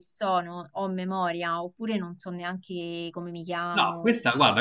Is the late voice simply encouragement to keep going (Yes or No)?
No